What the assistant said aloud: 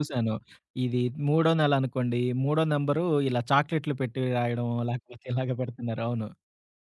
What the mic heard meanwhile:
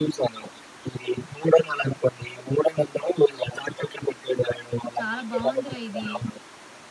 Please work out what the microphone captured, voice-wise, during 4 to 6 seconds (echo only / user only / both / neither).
both